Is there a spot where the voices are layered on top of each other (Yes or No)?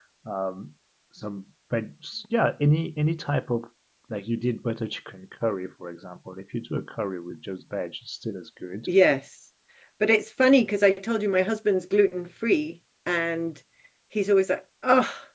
No